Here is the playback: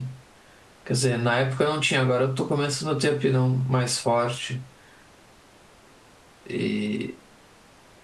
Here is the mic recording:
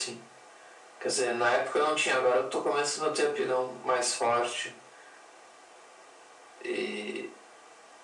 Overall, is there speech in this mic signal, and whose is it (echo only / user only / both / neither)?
echo only